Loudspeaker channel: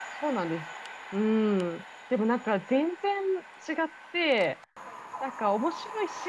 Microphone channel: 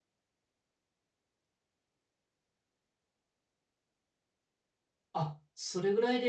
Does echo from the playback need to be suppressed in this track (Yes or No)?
No